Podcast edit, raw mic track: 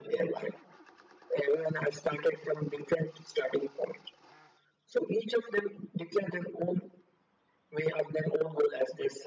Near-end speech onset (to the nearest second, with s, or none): none